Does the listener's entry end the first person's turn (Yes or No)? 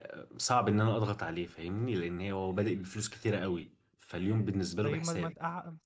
Yes